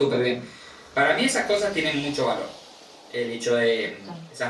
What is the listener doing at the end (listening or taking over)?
listening